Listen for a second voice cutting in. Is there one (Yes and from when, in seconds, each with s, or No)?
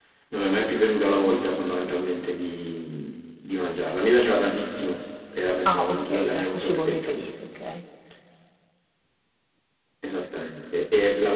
Yes, from 5.7 s